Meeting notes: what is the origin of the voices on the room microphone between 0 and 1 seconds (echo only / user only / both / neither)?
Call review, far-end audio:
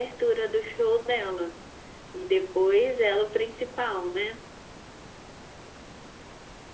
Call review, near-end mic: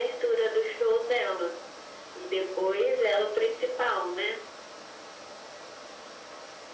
echo only